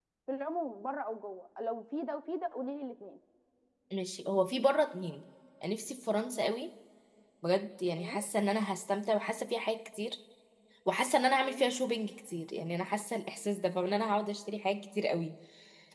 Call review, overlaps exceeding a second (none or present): none